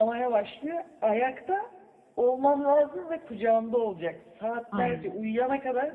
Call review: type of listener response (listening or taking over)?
listening